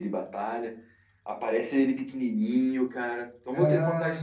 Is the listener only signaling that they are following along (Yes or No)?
No